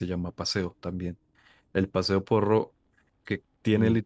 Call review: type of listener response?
listening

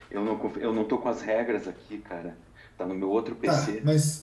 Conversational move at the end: taking over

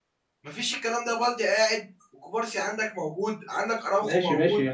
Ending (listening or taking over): taking over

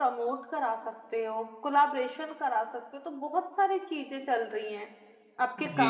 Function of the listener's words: listening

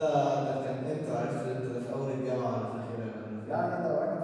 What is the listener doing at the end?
taking over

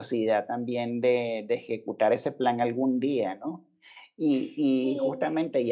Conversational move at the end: listening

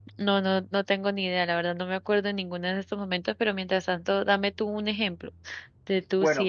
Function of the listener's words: listening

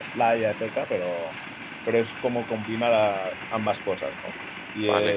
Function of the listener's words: taking over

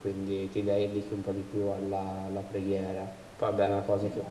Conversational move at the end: listening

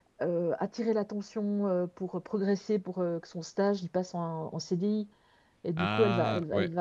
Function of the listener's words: listening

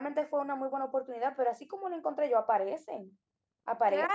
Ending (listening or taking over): taking over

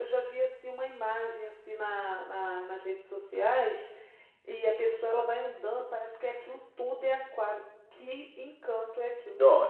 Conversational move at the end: taking over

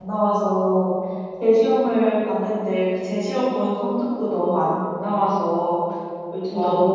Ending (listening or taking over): listening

